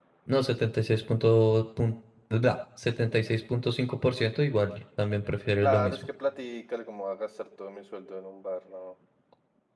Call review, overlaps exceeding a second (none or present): none